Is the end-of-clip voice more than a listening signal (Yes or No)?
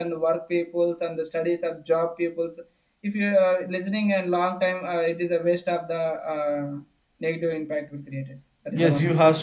Yes